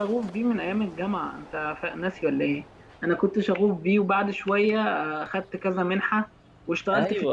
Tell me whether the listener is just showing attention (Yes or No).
No